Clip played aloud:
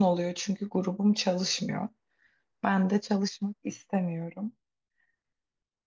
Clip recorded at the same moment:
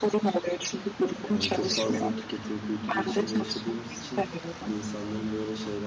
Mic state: both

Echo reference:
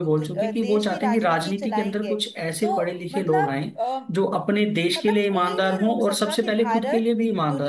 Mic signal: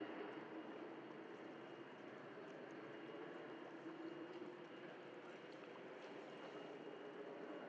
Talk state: neither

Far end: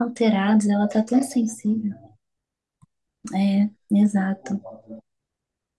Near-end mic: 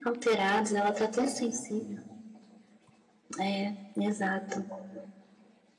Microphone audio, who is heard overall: echo only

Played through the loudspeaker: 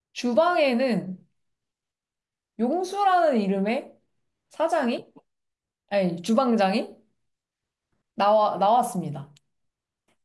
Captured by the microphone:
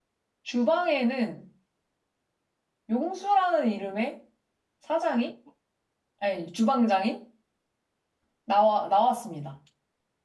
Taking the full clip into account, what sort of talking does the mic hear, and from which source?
echo only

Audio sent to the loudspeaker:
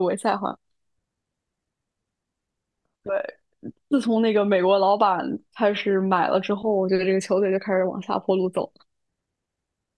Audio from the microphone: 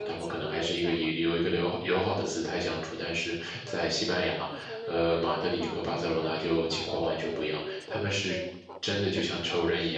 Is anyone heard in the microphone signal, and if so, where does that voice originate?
both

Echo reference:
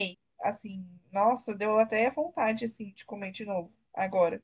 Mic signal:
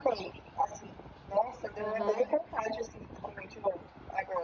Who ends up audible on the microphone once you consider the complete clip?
both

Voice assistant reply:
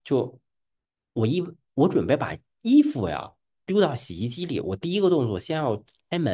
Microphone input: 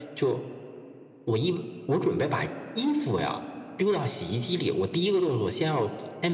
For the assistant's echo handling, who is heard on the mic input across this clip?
echo only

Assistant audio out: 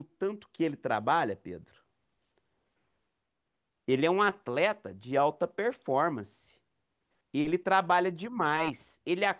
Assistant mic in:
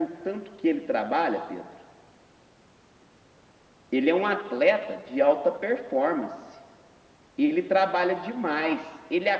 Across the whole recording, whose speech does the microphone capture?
echo only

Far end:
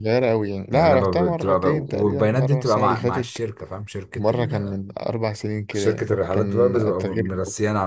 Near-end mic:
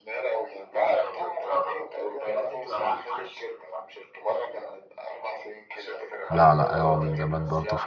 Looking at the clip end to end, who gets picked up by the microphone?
both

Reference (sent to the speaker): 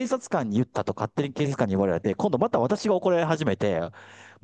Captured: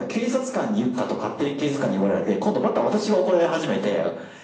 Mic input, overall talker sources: echo only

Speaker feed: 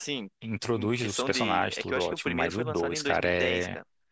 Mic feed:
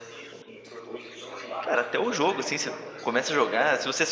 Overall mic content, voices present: both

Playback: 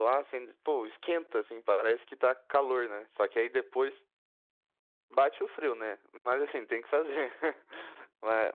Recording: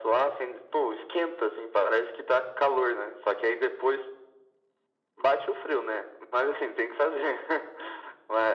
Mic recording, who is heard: echo only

